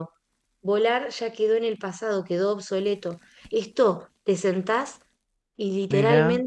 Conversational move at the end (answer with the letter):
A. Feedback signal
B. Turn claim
A